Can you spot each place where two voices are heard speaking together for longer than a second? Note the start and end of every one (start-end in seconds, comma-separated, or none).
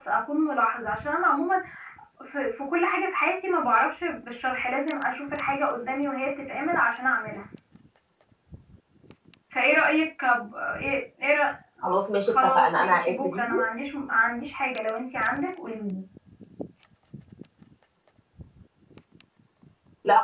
12.2-13.6